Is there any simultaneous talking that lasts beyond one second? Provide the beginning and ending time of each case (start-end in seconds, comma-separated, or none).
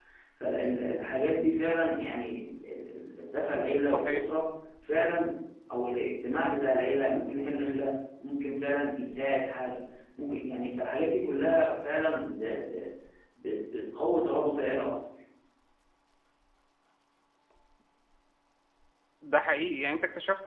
none